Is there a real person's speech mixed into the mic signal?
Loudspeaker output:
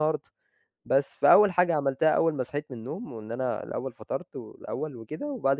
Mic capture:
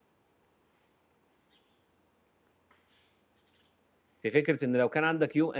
Yes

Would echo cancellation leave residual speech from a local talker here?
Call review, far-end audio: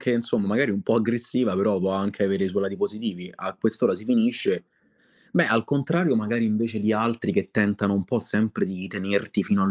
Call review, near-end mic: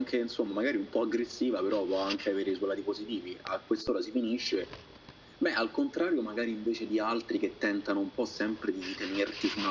No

